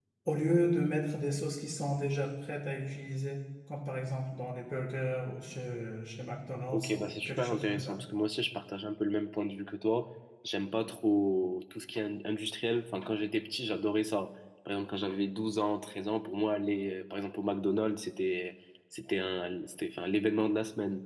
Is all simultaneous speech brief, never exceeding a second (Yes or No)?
No